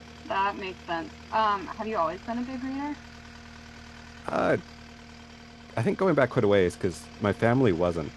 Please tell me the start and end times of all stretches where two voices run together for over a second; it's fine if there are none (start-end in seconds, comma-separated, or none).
none